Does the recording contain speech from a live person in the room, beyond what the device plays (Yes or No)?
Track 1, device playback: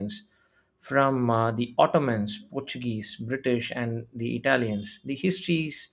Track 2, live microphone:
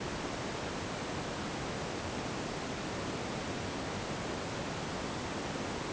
No